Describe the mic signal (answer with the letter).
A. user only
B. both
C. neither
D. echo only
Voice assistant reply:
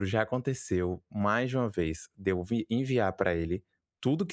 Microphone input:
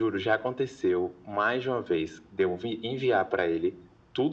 D